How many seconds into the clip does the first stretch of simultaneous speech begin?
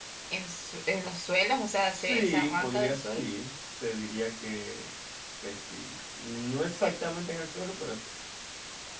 2 s

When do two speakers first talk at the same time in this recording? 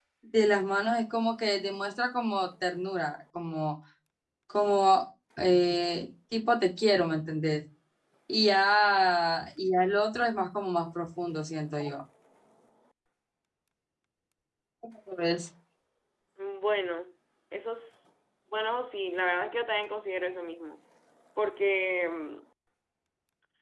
none

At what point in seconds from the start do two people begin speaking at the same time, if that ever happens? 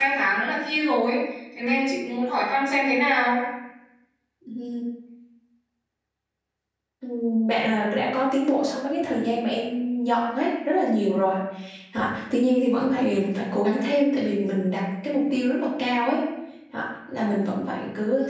none

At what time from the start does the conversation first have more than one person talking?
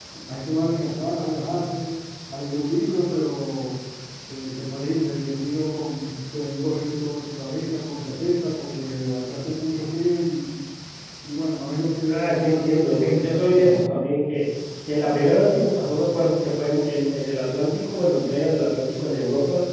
12 s

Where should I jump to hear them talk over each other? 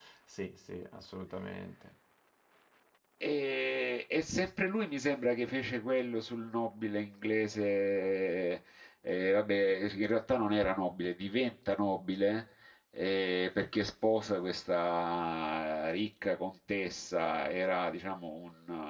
none

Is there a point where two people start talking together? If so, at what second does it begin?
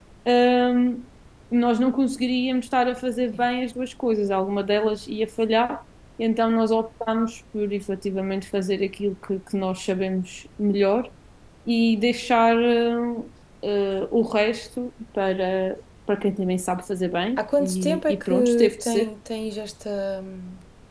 17 s

